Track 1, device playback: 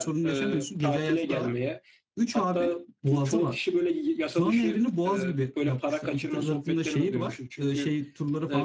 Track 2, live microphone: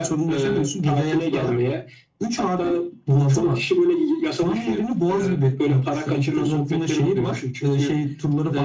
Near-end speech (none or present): none